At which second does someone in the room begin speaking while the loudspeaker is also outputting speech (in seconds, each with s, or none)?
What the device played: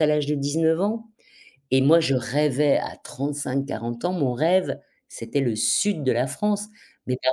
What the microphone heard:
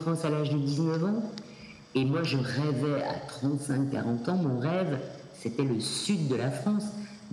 none